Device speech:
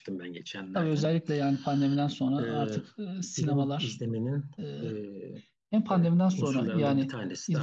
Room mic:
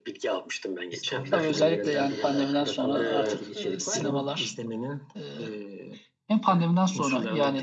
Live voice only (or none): distopya filmlerinden birinde aklında kalan herhangi bir içerik var mı?